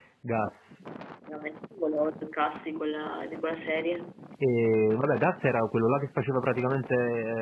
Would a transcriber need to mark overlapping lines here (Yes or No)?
No